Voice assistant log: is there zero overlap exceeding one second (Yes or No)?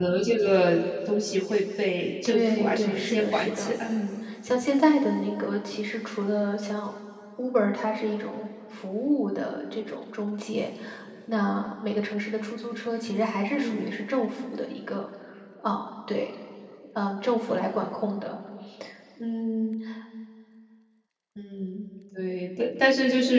No